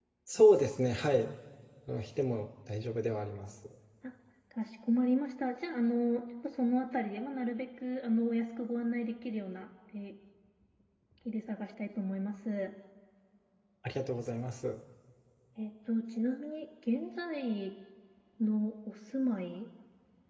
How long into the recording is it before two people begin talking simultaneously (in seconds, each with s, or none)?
none